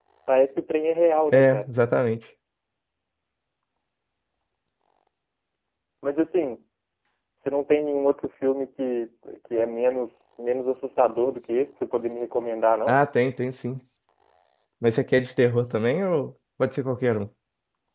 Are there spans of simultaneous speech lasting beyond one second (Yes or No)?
No